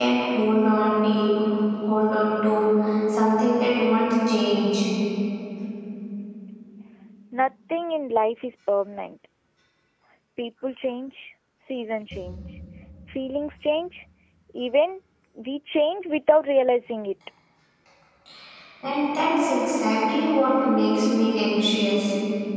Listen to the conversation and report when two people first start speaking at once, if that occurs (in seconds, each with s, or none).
none